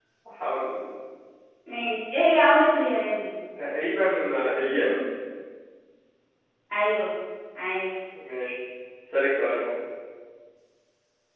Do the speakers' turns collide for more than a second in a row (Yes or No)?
No